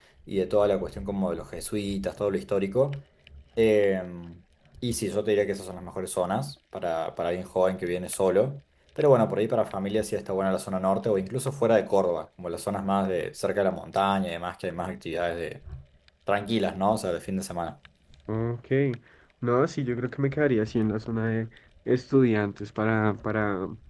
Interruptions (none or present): none